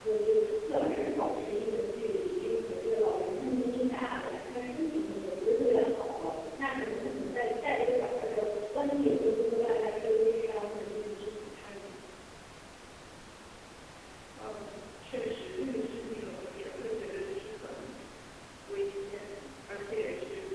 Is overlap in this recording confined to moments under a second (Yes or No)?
Yes